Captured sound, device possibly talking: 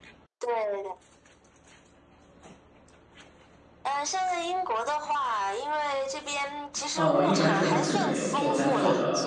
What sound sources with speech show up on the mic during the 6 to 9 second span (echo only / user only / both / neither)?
both